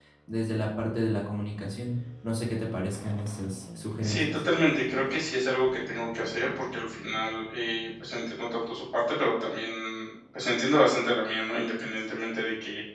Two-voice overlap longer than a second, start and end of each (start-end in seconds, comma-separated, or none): none